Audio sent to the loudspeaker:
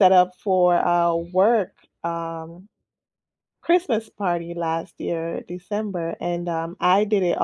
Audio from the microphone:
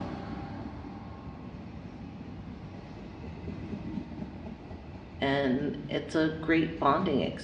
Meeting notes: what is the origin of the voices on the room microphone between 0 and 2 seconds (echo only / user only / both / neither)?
neither